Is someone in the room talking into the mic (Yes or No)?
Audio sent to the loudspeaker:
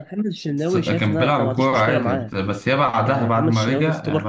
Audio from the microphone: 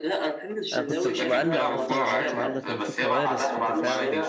Yes